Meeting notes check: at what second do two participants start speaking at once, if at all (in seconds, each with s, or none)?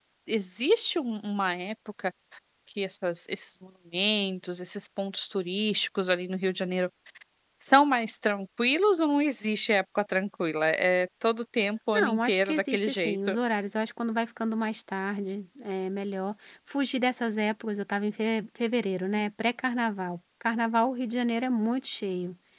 11.9 s